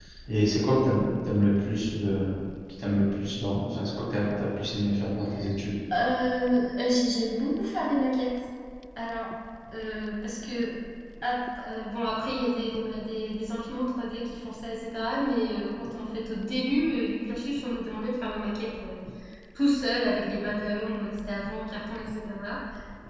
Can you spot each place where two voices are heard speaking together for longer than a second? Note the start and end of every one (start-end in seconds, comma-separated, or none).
none